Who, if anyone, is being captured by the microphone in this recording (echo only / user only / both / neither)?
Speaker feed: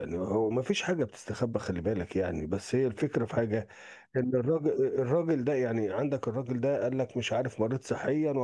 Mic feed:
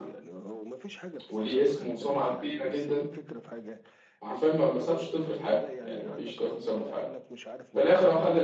both